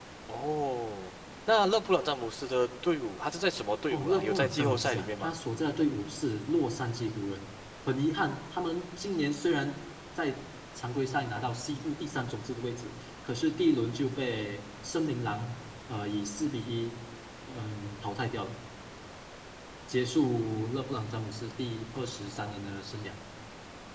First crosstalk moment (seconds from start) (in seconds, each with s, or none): 3.9 s